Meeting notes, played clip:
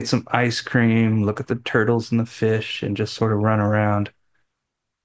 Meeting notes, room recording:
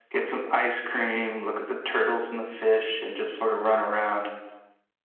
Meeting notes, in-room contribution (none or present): none